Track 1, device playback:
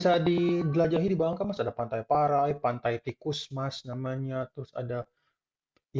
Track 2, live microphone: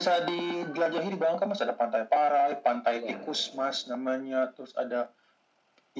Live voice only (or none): Ya.